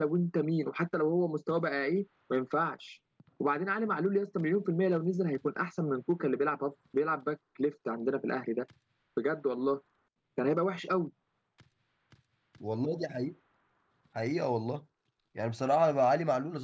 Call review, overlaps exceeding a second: none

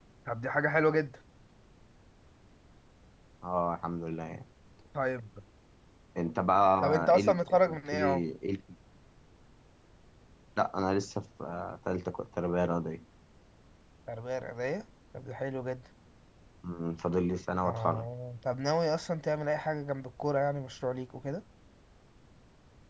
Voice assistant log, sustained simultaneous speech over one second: present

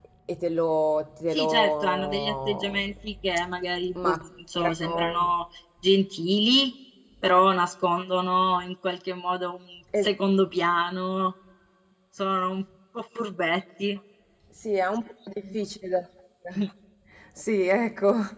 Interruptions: present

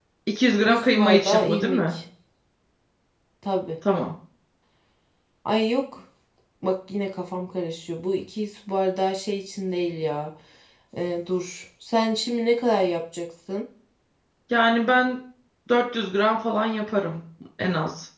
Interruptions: present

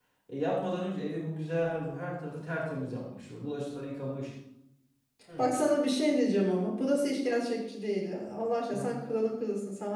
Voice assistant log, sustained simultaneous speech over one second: none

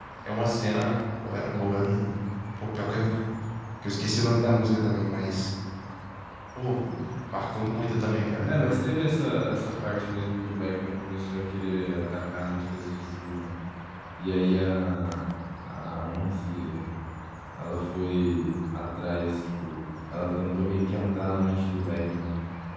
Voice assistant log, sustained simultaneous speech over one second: none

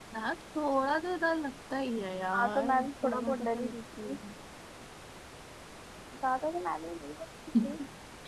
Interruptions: present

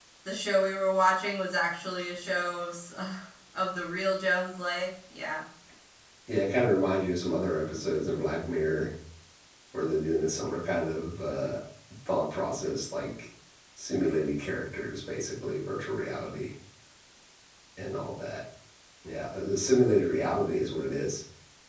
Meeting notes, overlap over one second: none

